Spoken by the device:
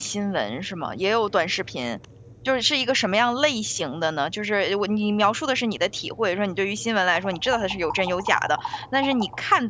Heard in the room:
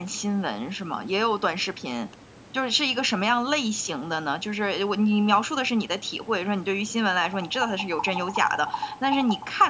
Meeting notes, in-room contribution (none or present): none